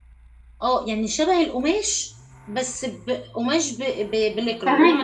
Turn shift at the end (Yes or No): No